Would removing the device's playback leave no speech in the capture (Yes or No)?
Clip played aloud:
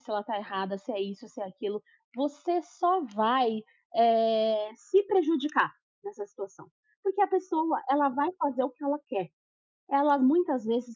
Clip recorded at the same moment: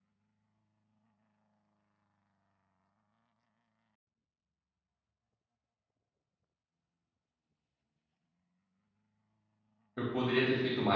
No